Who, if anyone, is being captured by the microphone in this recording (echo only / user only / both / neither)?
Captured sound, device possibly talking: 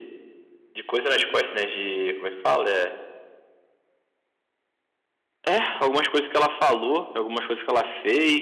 echo only